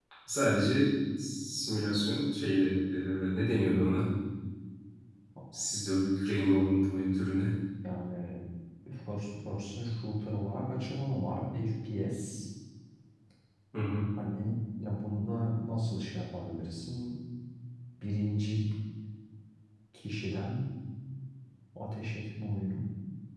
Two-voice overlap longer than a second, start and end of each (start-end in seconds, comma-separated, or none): none